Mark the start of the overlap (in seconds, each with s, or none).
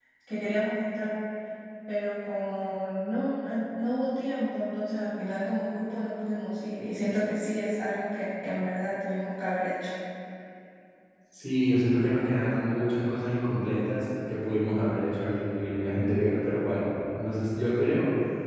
none